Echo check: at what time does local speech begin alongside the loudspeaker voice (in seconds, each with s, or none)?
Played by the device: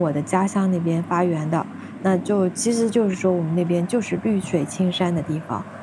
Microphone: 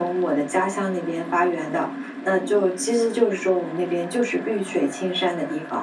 none